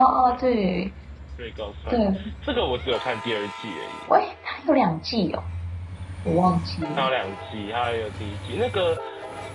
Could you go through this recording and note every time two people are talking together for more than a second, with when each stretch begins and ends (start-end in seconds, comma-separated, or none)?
none